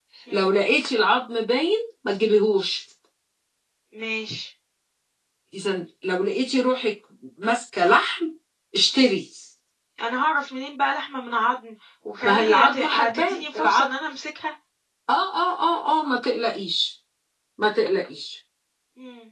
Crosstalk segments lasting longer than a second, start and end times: 12.2-13.9

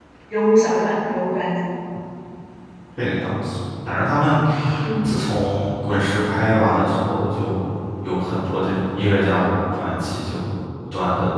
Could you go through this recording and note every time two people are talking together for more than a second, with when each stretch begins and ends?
none

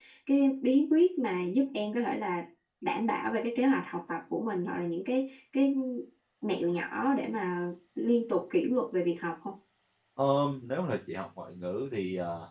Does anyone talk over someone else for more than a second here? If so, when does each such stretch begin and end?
none

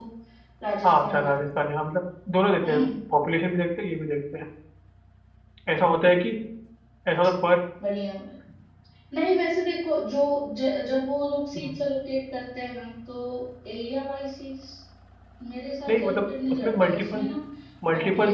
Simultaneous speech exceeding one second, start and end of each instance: 15.9-17.3

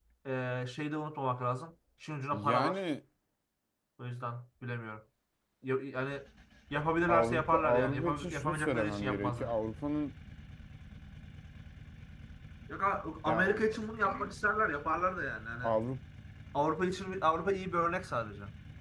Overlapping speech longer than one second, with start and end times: 7.1-9.5

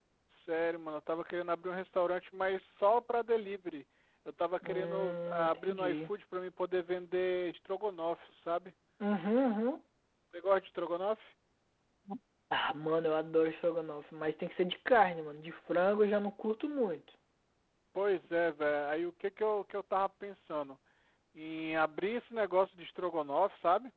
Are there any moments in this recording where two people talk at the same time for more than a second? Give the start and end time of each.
4.6-6.0

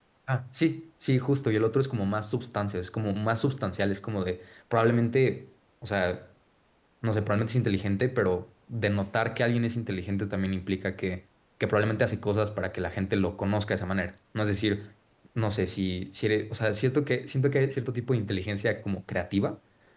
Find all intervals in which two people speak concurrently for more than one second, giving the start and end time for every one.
none

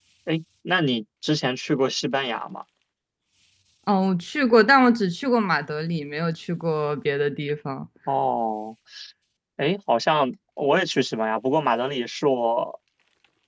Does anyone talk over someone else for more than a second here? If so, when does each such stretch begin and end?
none

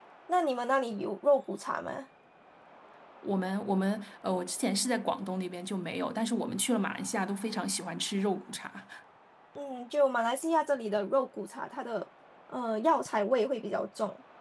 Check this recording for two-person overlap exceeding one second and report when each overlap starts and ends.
none

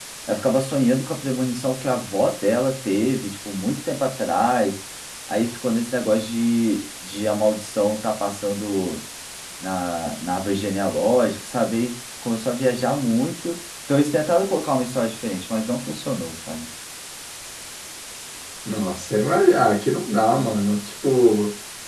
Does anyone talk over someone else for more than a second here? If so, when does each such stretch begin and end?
none

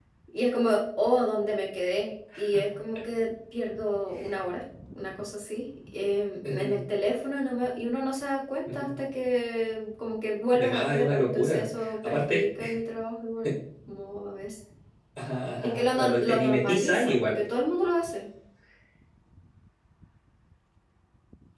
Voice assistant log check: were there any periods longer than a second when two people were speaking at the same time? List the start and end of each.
10.5-12.5, 15.6-17.4

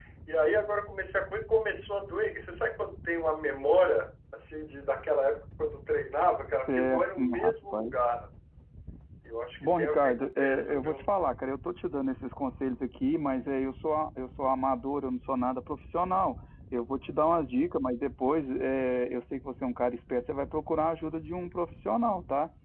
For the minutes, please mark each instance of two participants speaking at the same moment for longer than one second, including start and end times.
6.7-7.9, 9.6-11.1

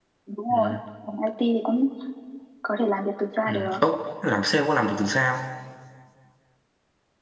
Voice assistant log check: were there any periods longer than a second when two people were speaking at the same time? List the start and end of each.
none

